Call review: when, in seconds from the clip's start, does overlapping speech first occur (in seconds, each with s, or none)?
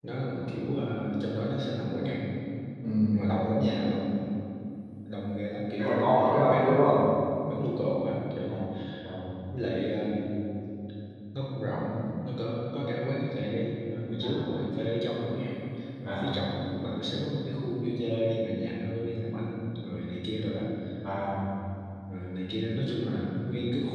5.8 s